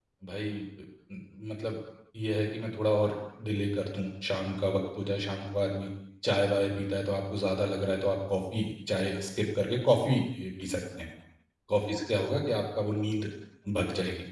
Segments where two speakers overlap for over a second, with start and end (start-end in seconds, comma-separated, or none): none